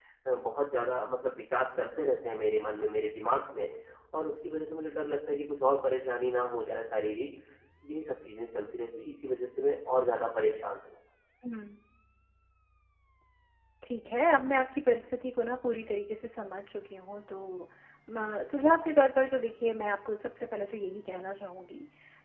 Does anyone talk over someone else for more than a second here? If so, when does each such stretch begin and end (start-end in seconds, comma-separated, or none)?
none